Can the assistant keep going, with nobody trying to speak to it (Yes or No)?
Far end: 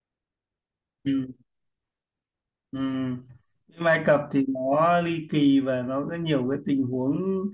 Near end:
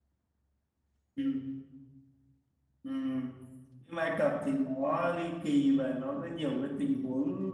Yes